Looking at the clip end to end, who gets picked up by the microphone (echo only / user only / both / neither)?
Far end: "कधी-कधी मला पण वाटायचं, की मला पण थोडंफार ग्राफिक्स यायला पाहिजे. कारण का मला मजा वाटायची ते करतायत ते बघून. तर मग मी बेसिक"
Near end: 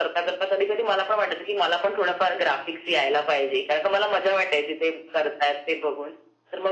echo only